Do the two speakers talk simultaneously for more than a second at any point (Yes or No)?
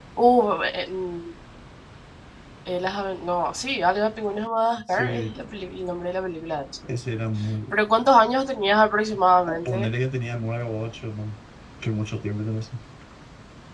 No